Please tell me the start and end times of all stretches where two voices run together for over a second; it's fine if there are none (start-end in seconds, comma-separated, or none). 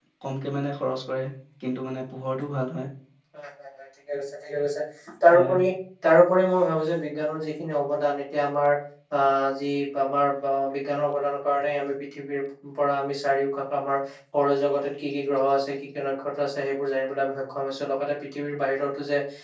none